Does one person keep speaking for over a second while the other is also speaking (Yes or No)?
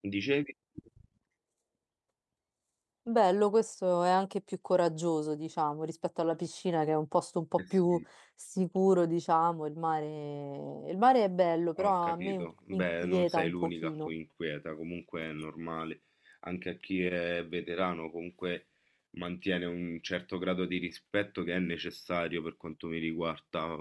Yes